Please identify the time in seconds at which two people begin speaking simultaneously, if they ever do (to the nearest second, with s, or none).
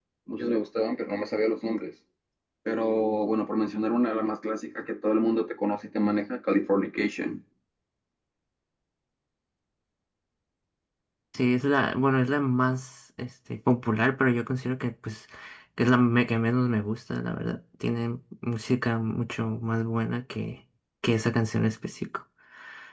none